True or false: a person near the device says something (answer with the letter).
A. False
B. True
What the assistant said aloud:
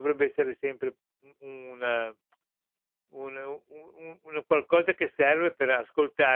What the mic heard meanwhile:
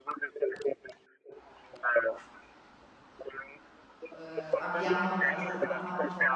B